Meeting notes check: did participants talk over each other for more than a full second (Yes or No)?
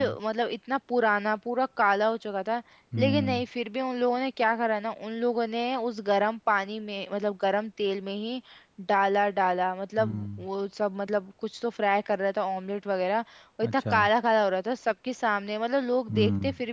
No